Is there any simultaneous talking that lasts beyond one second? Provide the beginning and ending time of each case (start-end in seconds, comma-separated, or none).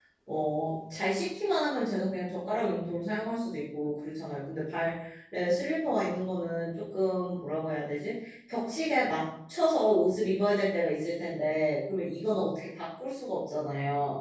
none